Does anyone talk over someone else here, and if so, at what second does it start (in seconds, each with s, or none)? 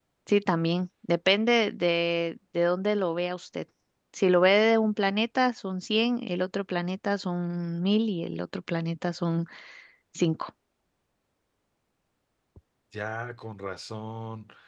none